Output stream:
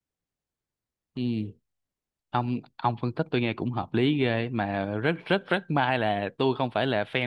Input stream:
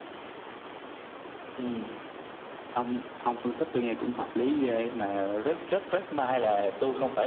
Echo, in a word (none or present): present